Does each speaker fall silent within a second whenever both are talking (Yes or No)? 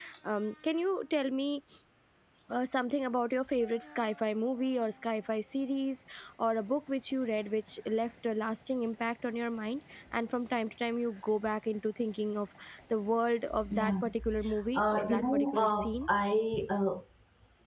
No